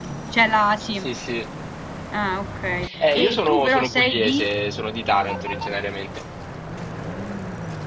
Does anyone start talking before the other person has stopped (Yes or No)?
Yes